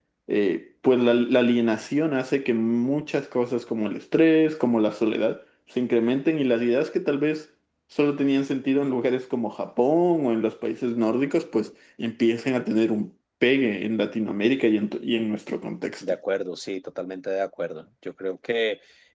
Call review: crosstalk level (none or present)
none